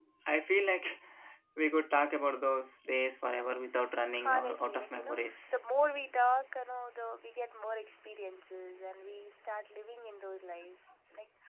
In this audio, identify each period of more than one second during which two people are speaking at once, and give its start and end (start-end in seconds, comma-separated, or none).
4.2-5.5